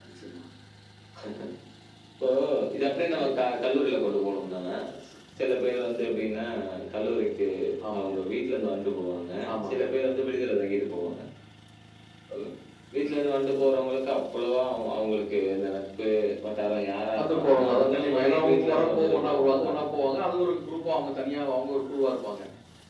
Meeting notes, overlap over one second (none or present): present